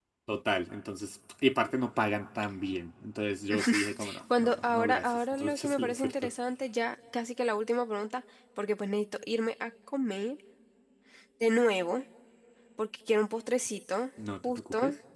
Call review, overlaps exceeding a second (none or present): present